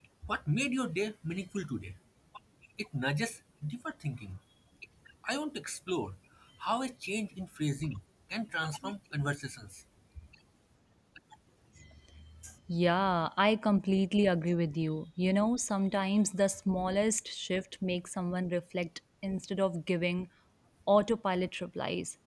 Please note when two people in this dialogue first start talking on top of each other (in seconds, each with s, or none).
none